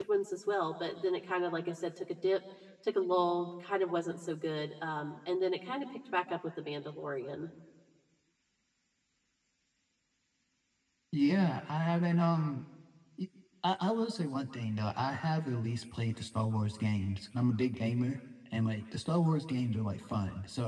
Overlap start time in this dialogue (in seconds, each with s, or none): none